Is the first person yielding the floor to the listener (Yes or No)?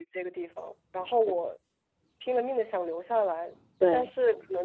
No